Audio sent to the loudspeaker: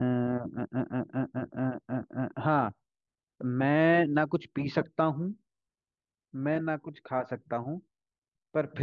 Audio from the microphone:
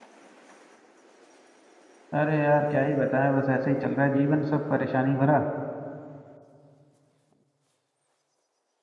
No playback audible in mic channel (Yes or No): Yes